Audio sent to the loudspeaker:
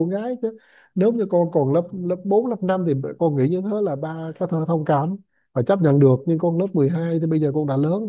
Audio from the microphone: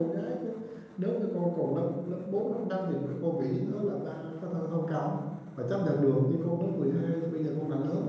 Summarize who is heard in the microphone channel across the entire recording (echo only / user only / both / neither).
echo only